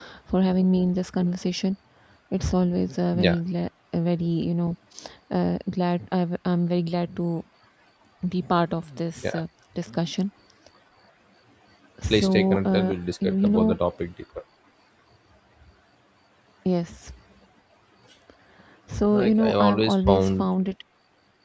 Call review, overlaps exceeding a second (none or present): present